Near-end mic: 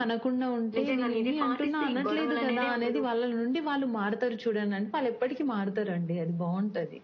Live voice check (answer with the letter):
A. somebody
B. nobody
A